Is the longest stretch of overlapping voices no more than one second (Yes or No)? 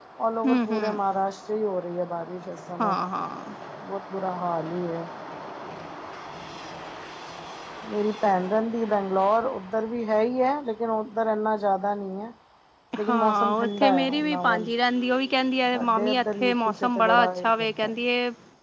No